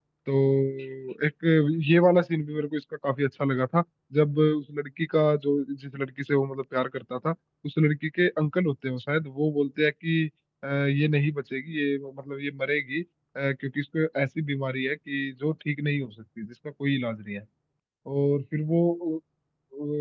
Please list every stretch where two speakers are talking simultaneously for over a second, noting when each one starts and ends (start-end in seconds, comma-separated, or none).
none